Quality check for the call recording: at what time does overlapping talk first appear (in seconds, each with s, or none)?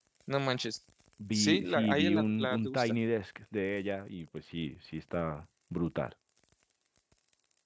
1.3 s